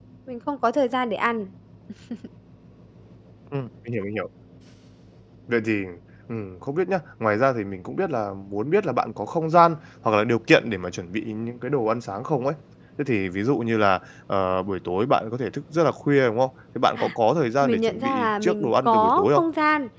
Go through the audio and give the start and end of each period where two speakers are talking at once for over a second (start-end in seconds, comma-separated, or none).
17.6-19.4